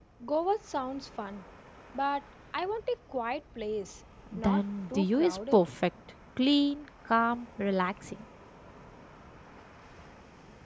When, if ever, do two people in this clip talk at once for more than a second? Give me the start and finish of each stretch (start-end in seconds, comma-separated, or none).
4.4-5.7